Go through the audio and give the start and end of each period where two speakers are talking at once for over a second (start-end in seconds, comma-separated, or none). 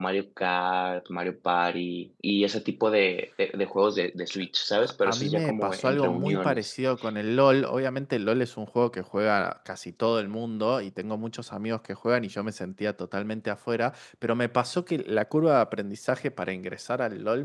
4.8-6.7